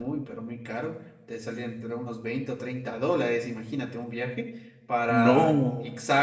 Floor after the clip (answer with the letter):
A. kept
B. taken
A